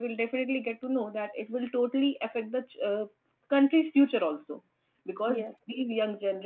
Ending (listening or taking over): listening